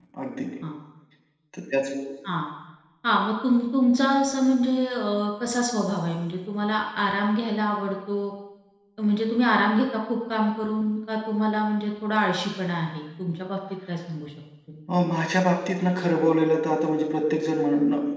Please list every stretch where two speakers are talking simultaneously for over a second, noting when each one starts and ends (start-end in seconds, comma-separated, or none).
none